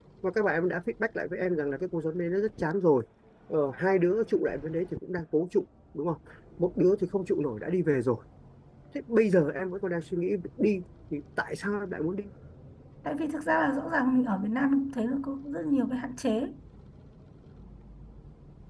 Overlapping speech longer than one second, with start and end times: none

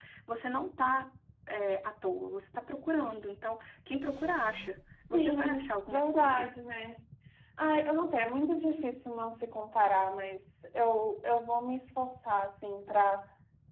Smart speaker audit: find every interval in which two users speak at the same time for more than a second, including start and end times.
5.1-6.5

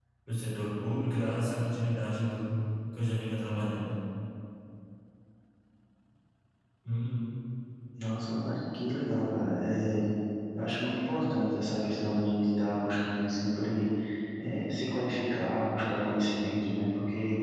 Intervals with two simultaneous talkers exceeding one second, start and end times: none

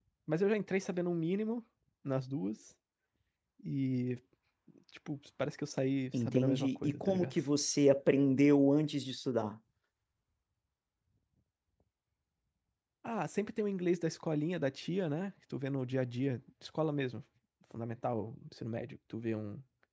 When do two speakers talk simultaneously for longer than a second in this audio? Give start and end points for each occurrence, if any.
6.1-7.4

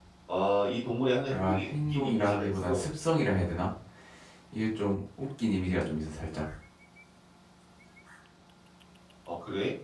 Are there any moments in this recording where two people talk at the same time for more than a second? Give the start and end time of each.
1.3-2.8

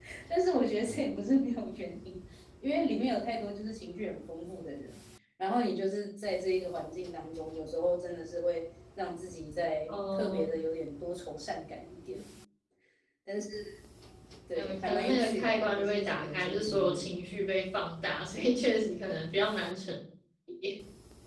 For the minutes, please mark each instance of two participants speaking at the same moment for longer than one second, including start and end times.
14.5-17.1

